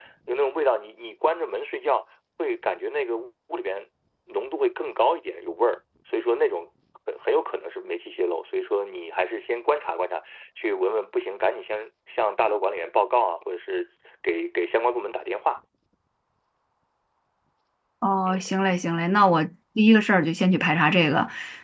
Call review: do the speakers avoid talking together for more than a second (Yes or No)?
Yes